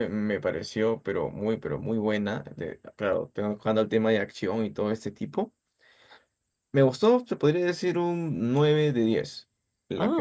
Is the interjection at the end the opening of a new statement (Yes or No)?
No